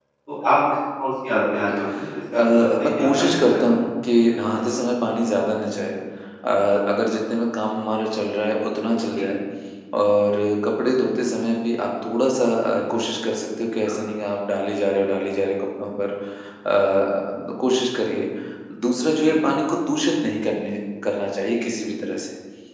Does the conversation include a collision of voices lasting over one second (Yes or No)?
Yes